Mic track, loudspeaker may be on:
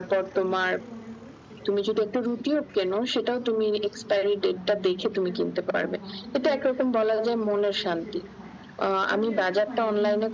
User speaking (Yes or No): Yes